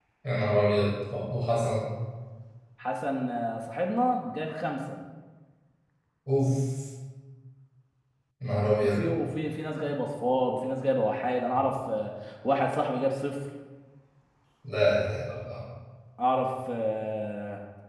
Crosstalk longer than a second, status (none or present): none